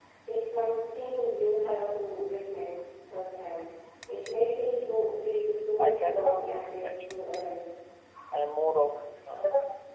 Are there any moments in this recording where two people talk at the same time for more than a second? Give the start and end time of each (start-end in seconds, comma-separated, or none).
5.8-7.0